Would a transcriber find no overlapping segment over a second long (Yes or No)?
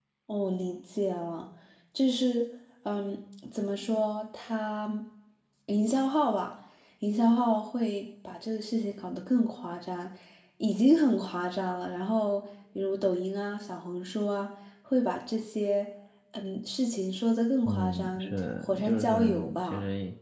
No